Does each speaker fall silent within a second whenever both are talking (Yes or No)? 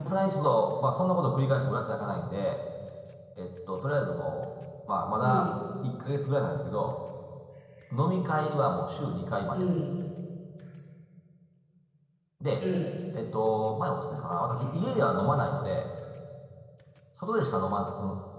Yes